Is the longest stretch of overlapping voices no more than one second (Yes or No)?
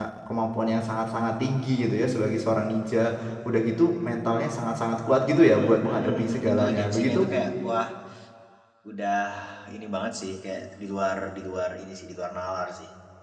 No